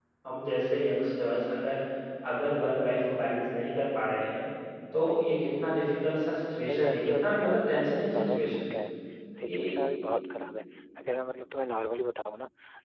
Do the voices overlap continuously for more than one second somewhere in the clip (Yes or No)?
Yes